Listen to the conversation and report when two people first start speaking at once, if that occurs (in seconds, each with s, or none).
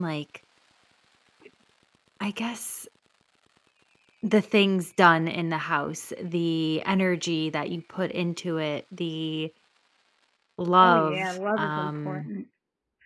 10.8 s